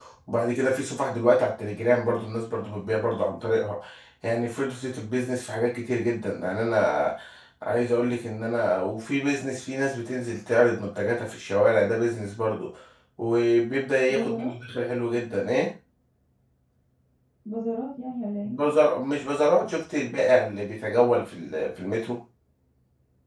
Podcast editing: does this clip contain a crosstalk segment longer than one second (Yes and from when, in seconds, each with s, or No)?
No